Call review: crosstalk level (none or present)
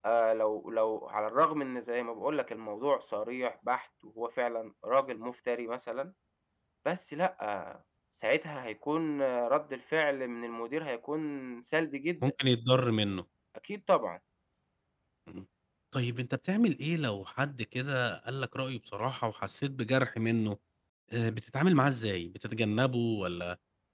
none